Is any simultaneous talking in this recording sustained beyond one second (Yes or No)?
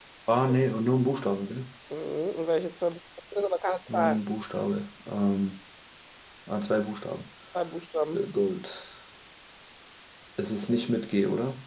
No